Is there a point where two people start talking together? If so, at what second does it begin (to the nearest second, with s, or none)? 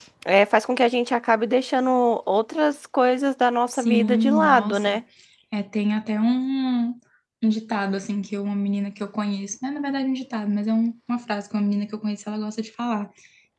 4 s